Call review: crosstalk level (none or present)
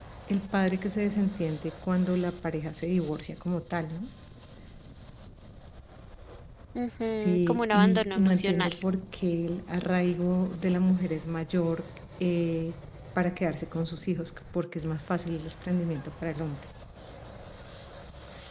present